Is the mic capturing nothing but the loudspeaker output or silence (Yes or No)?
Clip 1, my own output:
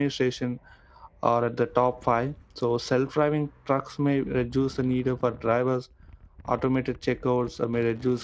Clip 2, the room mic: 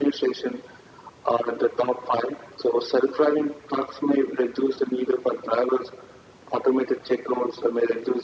Yes